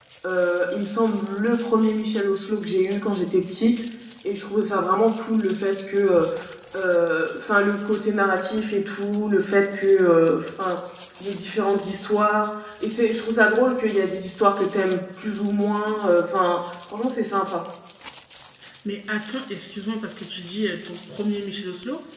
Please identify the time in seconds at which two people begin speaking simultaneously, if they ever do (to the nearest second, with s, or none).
none